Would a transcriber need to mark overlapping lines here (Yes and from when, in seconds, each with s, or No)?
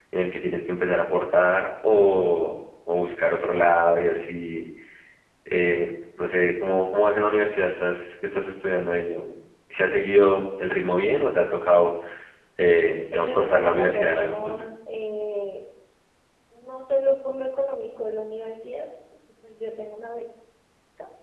Yes, from 13.1 s